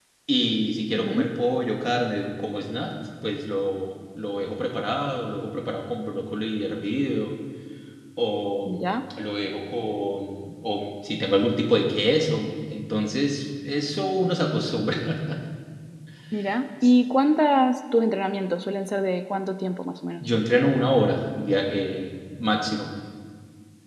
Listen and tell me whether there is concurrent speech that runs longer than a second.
No

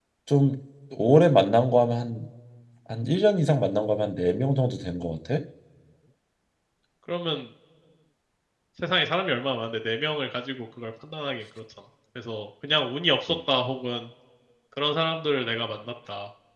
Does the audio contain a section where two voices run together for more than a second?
No

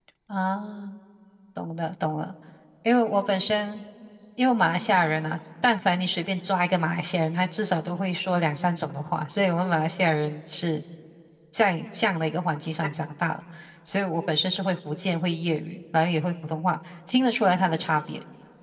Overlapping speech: No

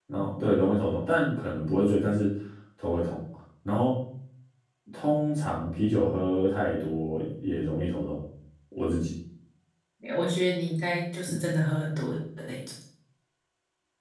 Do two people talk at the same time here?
No

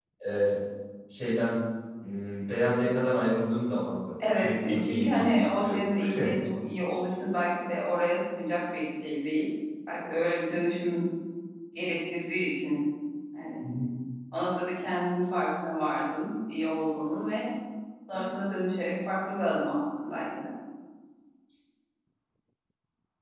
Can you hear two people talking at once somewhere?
Yes, from 4.2 s

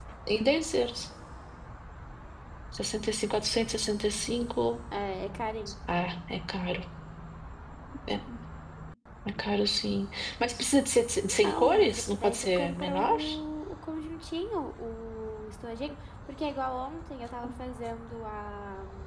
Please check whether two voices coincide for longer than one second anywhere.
Yes, from 11.2 s

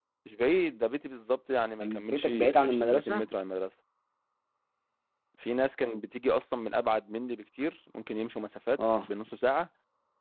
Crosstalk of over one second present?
Yes, from 1.8 s

